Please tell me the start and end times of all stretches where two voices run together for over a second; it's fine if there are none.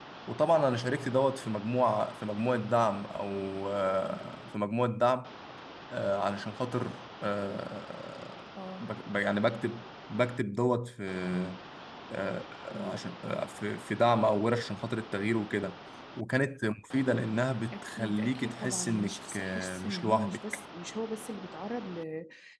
17.7-20.4

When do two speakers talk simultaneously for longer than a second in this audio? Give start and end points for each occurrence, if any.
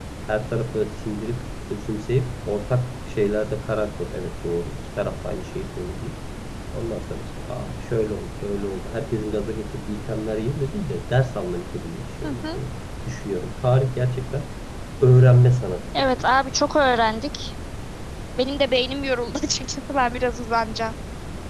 none

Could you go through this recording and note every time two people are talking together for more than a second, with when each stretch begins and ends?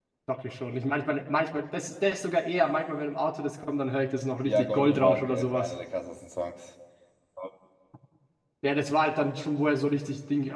4.4-5.7

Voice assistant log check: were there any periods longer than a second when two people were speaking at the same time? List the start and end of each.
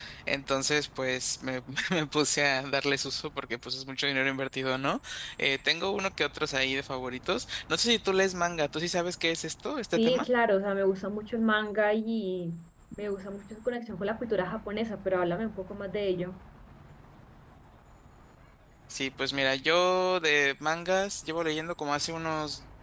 none

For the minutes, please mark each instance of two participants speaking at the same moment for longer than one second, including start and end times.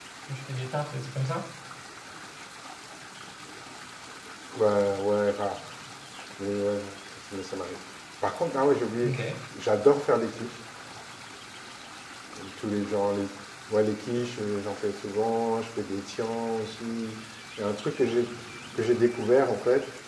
none

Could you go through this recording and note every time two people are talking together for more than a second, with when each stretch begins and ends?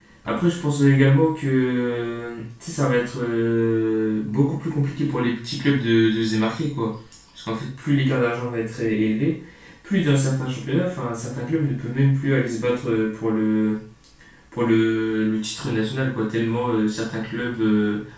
none

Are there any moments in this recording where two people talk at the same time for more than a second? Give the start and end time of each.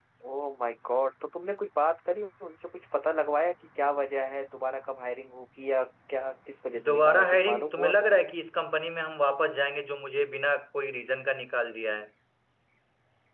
6.9-8.2

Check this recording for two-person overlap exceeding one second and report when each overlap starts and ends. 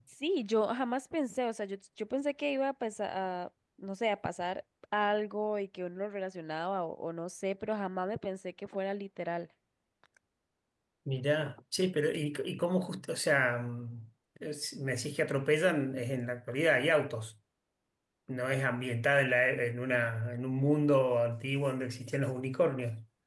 none

